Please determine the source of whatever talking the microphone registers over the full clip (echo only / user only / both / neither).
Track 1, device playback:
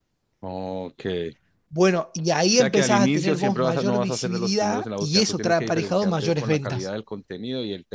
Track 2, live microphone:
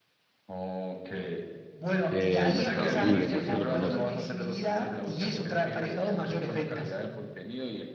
both